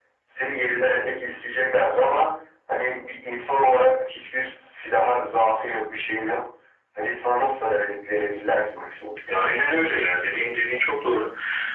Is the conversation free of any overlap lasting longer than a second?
Yes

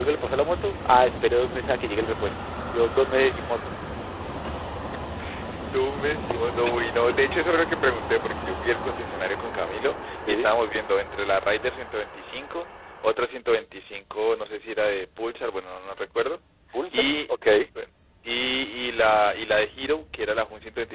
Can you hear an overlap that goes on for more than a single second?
No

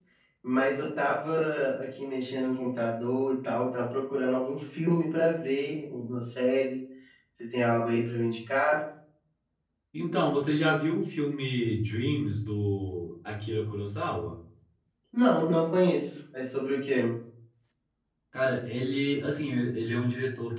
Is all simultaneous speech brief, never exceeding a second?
Yes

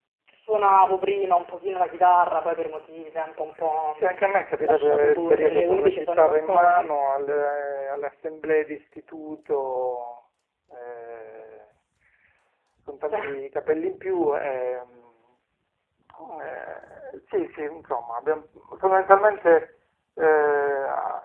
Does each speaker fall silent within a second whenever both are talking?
No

